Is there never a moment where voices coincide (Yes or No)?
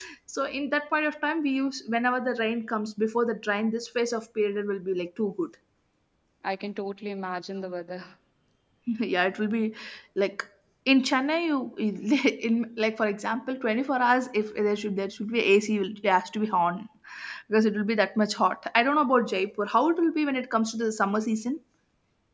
Yes